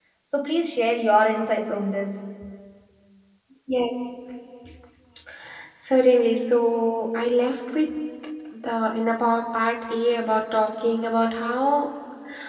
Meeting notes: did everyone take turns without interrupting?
Yes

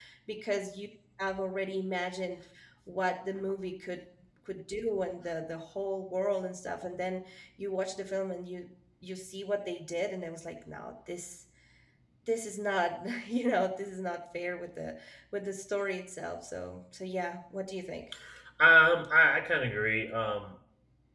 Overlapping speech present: No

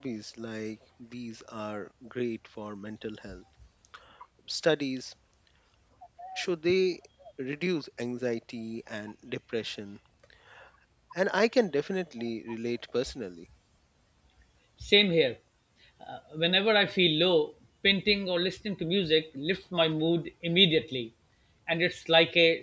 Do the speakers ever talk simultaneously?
No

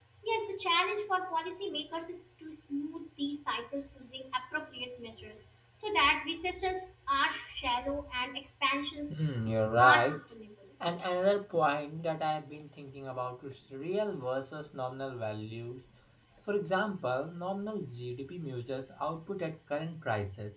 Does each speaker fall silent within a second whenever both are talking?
Yes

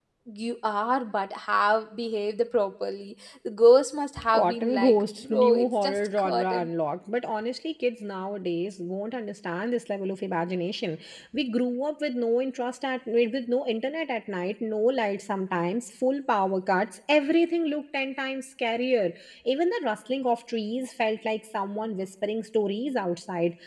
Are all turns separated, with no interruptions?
No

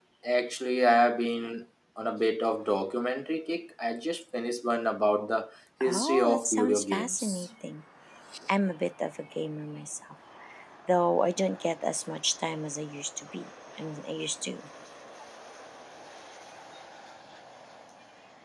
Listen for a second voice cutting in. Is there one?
Yes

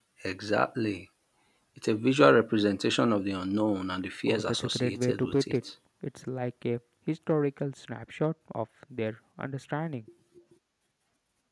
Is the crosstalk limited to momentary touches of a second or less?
No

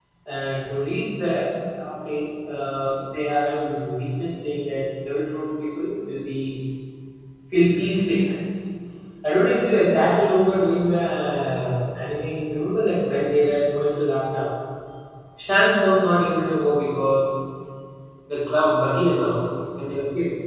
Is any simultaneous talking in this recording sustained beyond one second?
No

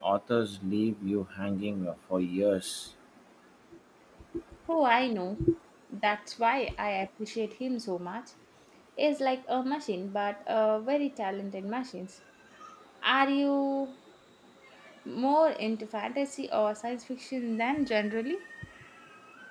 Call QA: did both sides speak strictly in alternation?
Yes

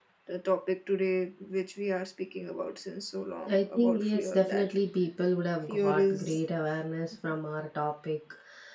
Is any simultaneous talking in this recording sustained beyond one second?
Yes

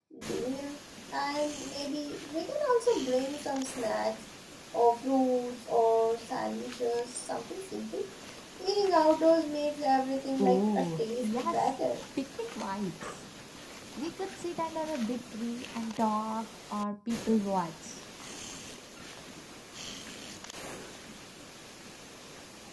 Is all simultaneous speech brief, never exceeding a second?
No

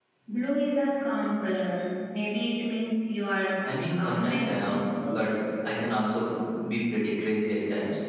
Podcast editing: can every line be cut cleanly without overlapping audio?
No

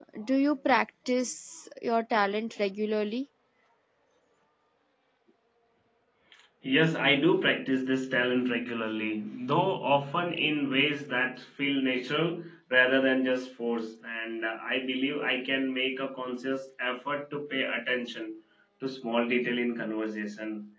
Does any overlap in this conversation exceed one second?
No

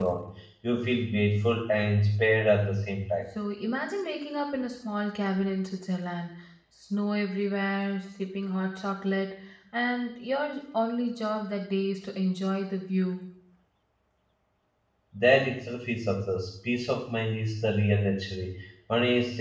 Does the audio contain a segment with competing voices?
No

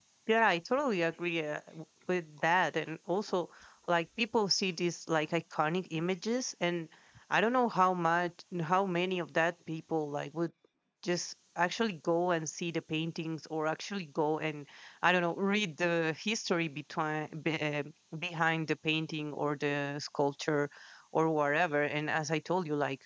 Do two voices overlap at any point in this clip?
No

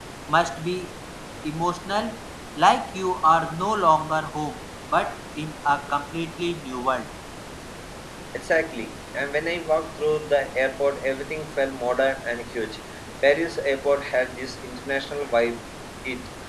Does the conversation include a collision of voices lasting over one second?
No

